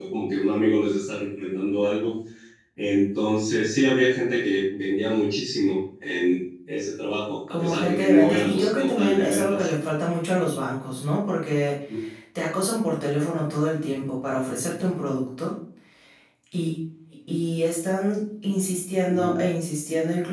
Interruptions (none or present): present